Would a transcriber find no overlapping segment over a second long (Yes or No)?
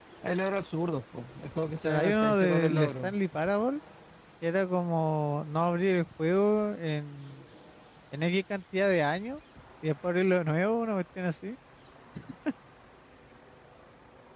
No